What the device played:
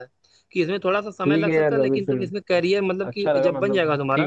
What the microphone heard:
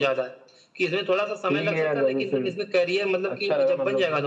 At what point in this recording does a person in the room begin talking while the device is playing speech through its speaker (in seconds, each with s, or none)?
none